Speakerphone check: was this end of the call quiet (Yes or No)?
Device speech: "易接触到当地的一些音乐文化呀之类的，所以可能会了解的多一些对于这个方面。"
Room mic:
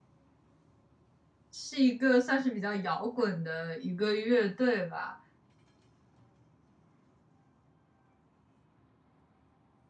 No